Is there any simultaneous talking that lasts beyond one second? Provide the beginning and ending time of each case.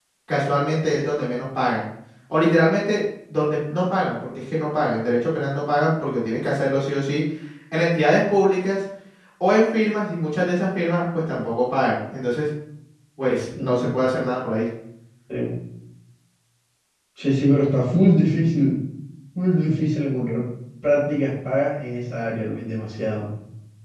none

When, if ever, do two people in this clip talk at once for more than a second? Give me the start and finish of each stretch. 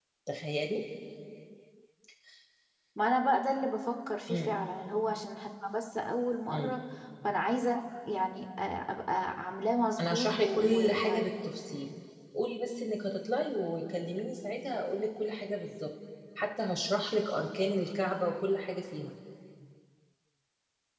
10.0-11.2

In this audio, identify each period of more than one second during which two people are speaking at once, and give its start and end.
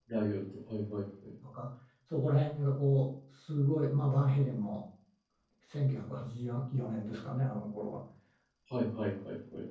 none

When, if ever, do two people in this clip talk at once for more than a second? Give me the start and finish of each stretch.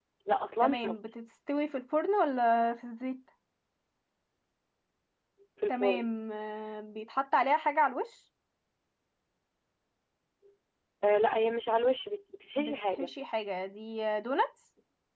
none

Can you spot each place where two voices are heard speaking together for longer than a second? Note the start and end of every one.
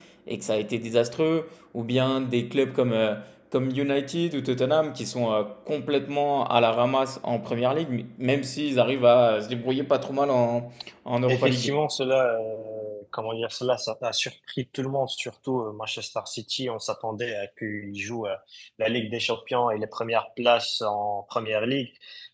none

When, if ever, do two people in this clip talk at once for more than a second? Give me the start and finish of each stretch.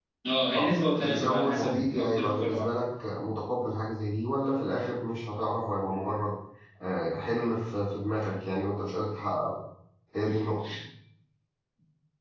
0.6-2.6

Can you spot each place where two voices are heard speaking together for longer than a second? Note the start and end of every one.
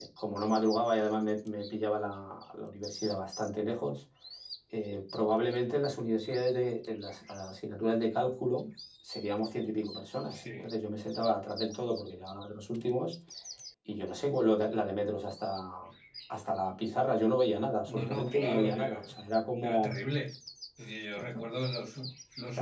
17.9-19.1

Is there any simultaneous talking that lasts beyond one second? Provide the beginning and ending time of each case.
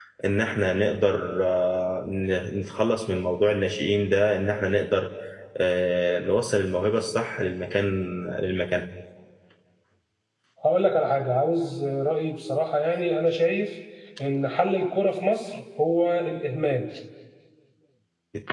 none

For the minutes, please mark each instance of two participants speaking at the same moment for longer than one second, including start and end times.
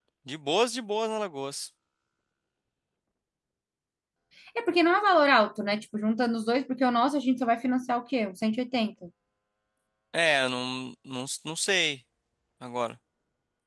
none

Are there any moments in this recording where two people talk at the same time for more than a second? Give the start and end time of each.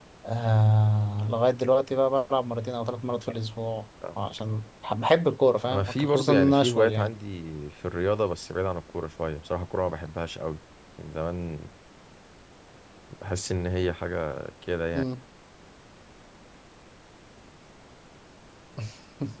5.7-7.1

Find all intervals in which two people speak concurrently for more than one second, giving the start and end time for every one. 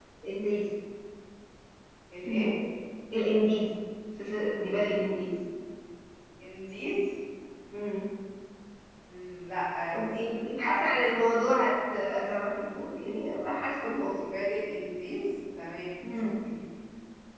9.9-11.6

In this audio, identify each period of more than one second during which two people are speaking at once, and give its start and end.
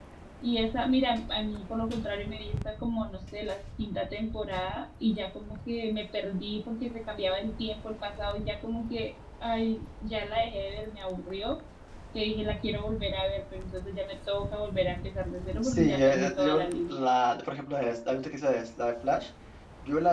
15.6-17.0

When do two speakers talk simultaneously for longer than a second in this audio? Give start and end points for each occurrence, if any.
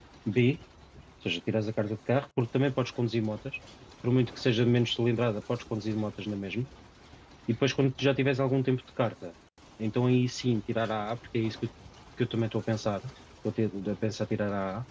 none

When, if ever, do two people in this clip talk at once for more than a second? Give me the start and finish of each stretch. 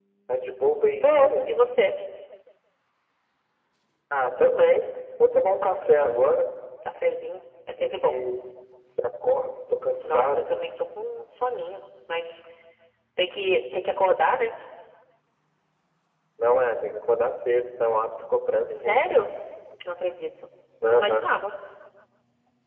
none

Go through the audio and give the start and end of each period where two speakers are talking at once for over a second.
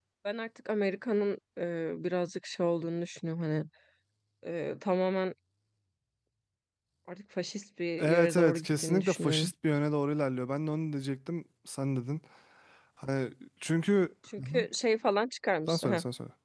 8.0-9.5

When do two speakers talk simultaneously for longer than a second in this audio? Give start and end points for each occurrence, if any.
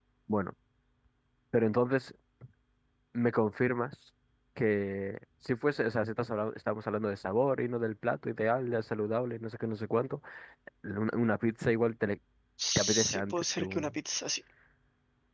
12.8-14.0

